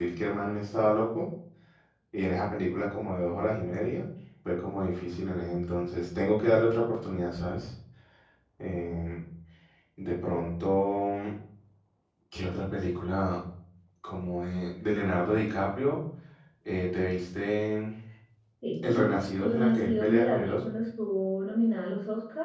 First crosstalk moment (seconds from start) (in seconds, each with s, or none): 18.8 s